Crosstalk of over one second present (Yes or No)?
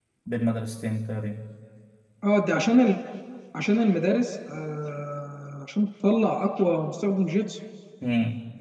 No